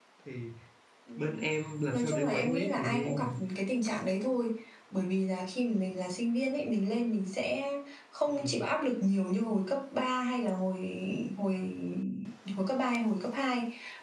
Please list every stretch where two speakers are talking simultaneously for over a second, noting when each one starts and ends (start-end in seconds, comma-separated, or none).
1.9-3.3